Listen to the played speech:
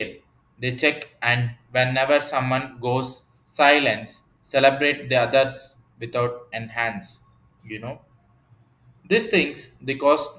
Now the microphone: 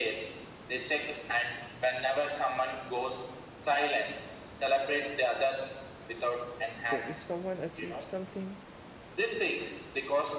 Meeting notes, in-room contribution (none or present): present